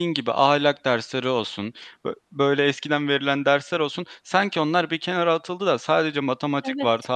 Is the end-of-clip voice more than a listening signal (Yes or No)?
No